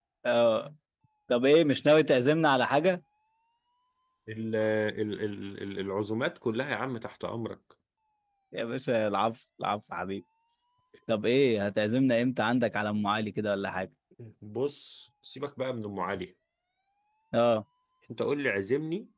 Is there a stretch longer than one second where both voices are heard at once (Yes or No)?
No